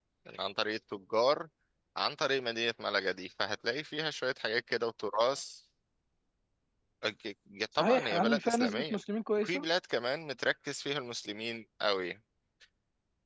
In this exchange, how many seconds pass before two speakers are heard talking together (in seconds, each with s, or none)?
7.8 s